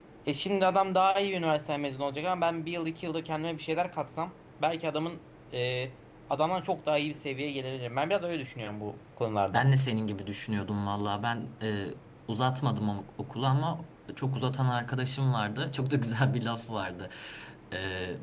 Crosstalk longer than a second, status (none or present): none